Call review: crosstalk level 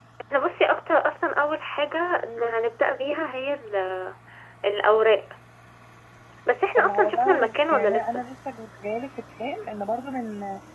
present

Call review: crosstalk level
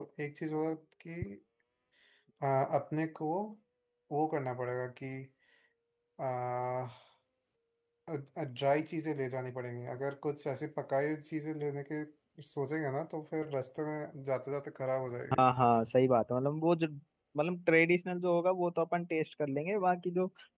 none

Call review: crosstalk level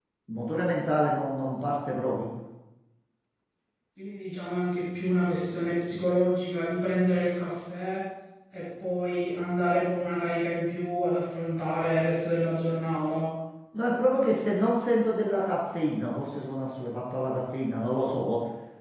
none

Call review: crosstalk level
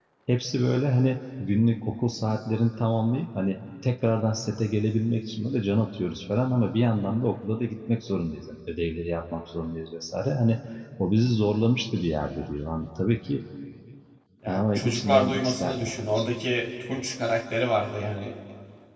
present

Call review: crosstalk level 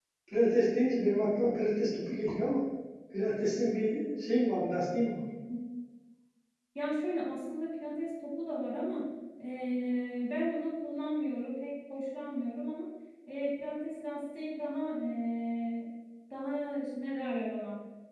none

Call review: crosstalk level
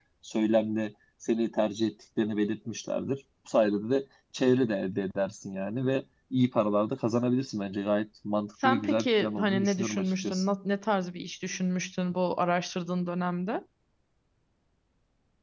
present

